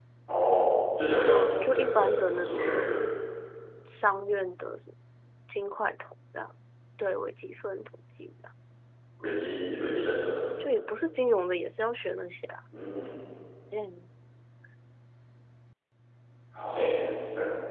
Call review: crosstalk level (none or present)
present